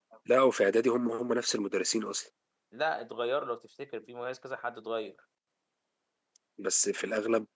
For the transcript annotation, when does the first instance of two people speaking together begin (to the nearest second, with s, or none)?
none